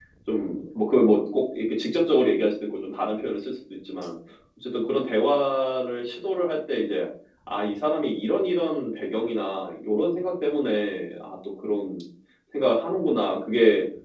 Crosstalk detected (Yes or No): No